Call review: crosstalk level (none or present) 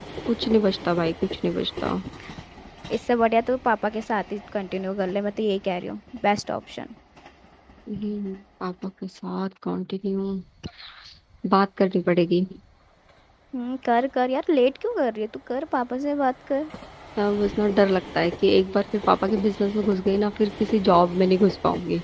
none